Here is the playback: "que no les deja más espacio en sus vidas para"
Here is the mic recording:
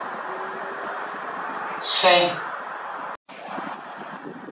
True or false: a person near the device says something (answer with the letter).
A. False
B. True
B